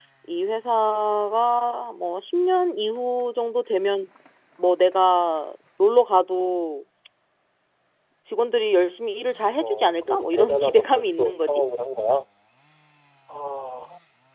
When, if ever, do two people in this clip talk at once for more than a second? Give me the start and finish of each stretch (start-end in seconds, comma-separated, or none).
9.6-11.5